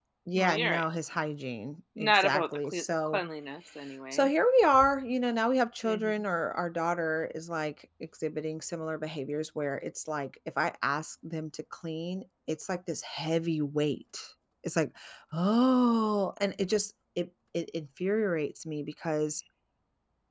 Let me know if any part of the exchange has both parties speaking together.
Yes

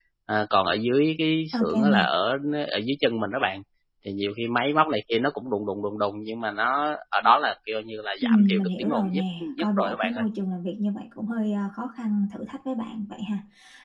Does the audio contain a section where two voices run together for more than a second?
Yes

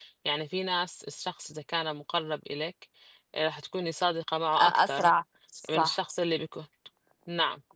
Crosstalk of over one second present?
No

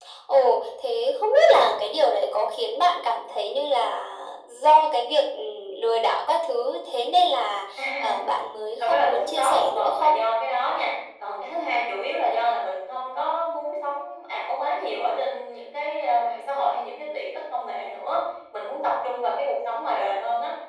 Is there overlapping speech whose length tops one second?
Yes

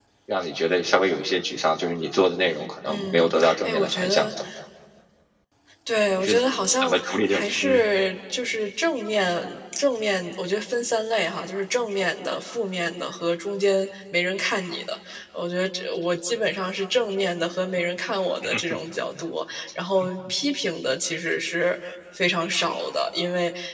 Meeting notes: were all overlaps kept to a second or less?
No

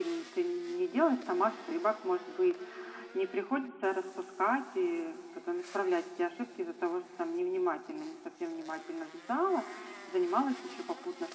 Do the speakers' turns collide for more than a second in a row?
No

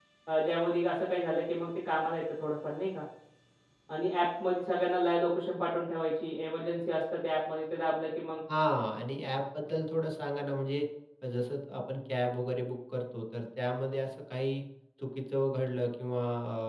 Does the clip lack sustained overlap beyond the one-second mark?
Yes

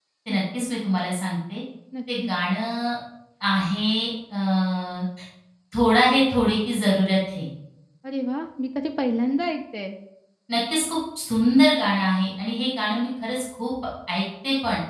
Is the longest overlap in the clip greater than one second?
No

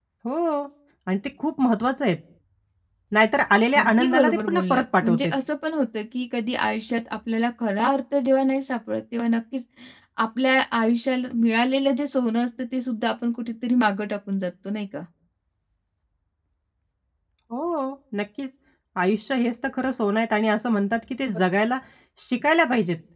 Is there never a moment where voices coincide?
No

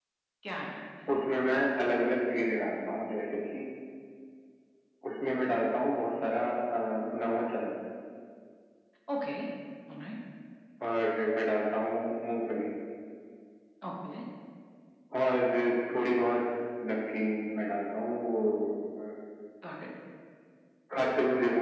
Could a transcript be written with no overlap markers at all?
Yes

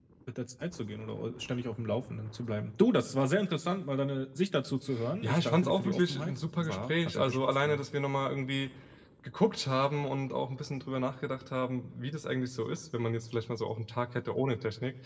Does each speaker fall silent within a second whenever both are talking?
No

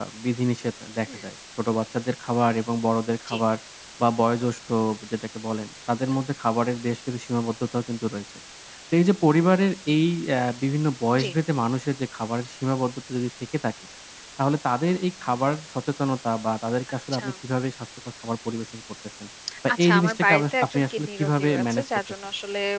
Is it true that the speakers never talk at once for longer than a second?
No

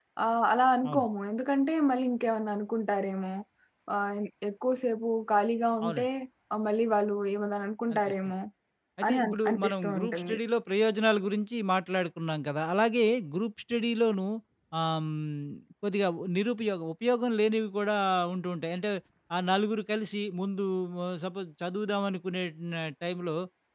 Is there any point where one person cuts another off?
Yes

